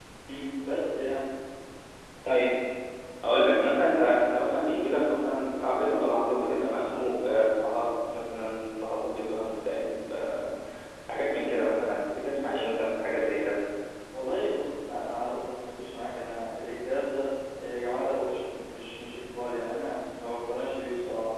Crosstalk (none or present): none